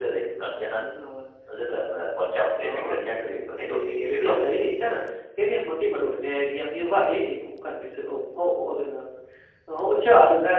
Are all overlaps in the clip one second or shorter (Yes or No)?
No